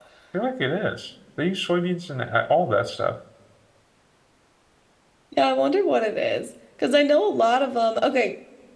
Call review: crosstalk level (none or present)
none